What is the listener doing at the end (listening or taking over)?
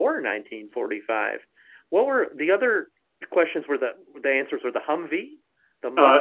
taking over